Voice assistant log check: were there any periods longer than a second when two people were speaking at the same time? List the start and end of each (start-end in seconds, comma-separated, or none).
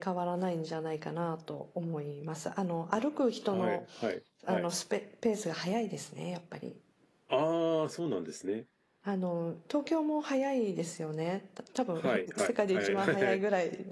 12.0-13.4